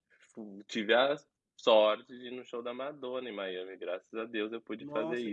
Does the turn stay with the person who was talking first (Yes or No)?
No